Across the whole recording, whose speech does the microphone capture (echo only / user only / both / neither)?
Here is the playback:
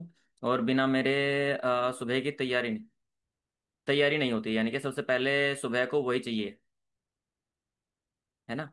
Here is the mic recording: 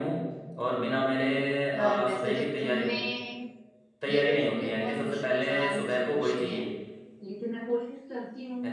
both